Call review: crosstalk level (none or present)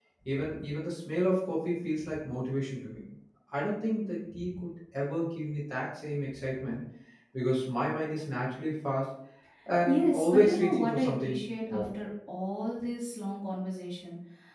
present